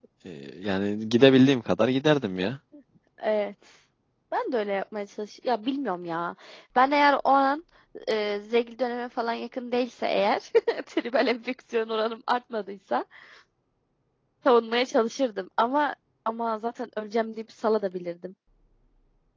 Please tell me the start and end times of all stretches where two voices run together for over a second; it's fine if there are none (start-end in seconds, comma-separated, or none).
none